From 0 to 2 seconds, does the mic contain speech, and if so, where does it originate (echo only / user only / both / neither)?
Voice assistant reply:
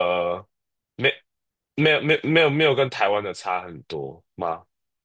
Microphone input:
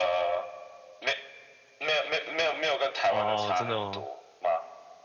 echo only